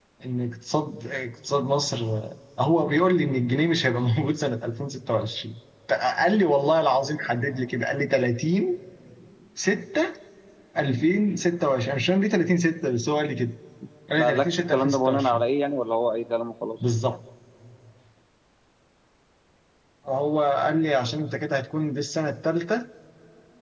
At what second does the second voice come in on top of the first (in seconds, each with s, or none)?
14.2 s